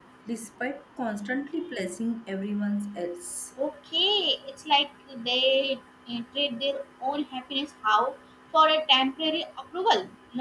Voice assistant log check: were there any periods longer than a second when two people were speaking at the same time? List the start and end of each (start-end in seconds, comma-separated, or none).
none